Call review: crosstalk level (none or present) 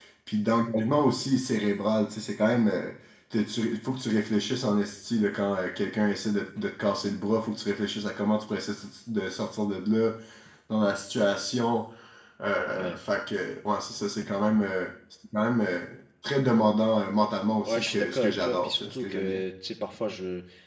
present